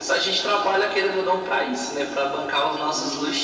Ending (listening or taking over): taking over